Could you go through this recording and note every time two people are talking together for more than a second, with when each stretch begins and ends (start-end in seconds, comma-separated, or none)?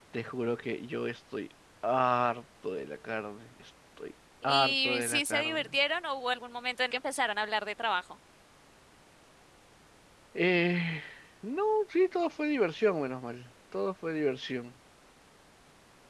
4.4-5.7